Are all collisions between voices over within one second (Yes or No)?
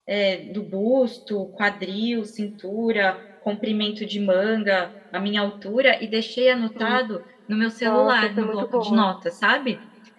No